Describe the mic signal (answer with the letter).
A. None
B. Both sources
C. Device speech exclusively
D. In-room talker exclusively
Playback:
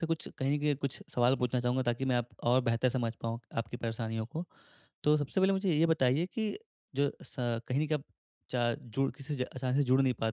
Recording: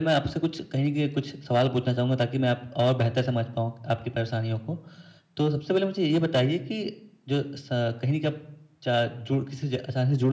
C